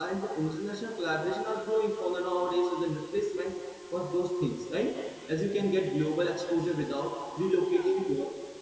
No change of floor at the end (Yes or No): Yes